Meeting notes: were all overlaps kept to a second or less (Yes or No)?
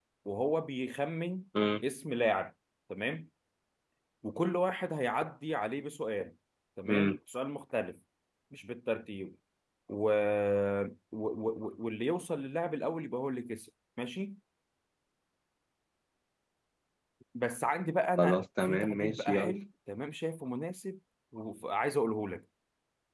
No